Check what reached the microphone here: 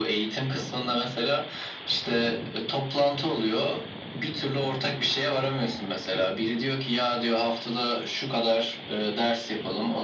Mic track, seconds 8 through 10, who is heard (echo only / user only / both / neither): echo only